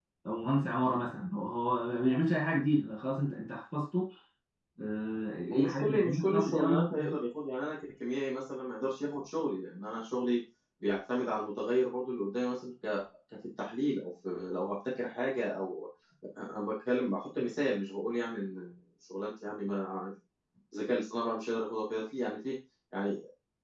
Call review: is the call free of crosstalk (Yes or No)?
No